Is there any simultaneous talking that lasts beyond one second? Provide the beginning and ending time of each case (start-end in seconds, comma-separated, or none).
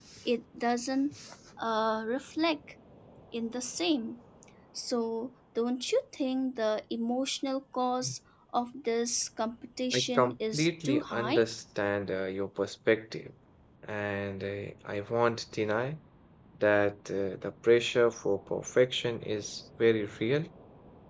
9.9-11.4